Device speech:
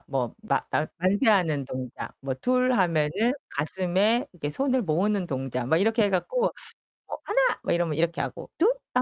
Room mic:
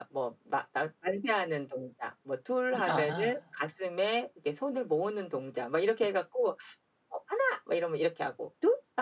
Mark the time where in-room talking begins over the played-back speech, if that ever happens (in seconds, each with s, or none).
2.7 s